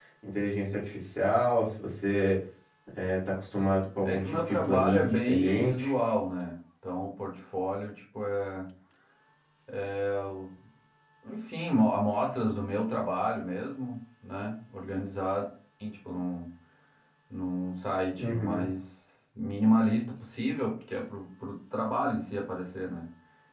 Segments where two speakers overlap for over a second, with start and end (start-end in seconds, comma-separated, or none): 4.0-5.9